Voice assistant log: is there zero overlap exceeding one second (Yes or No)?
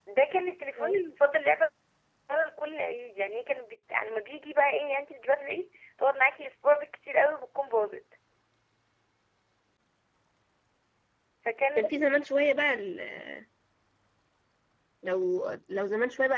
Yes